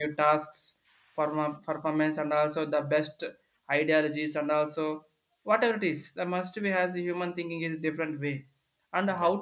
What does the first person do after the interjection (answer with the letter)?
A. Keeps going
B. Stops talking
A